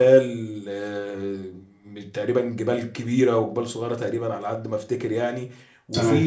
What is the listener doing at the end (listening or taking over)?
listening